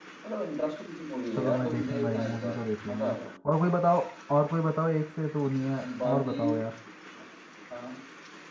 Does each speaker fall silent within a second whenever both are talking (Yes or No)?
No